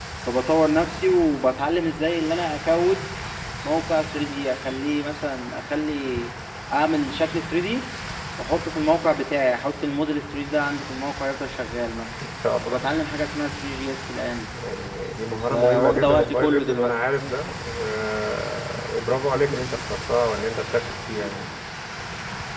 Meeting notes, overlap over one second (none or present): present